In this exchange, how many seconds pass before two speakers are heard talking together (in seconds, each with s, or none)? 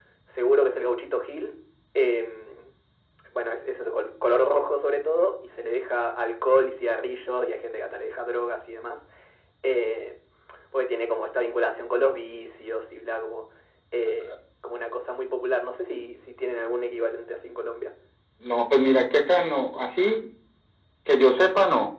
none